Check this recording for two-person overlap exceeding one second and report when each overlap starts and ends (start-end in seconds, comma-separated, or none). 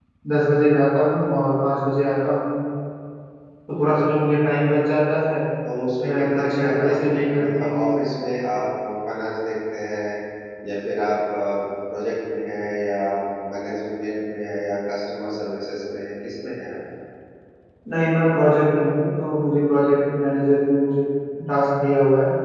6.1-7.7